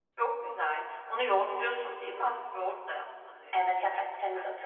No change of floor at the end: No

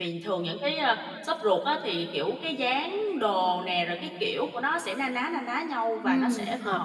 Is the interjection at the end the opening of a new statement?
Yes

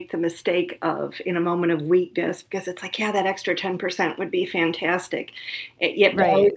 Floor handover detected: No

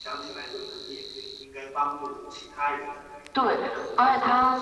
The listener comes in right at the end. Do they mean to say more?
Yes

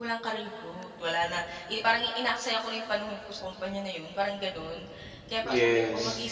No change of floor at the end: Yes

